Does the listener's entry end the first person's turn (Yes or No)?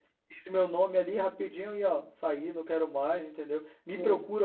No